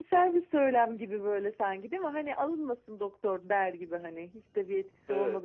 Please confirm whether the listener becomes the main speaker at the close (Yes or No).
Yes